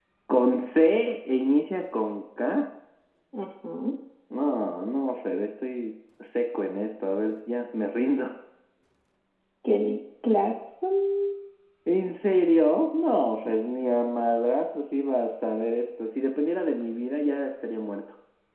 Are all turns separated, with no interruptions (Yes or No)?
Yes